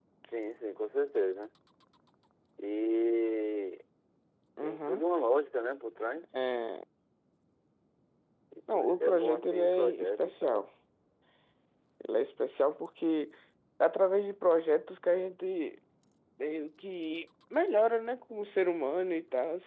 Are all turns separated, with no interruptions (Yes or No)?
No